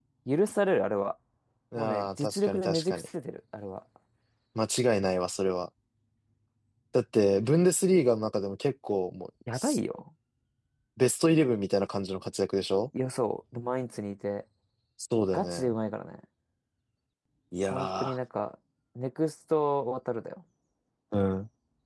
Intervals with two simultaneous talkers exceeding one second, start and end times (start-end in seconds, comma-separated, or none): 1.8-3.1